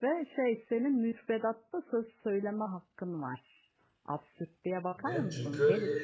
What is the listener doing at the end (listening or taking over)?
taking over